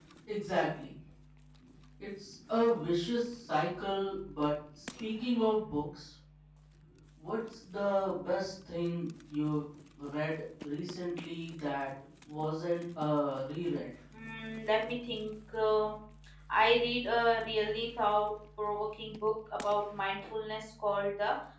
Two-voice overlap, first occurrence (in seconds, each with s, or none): none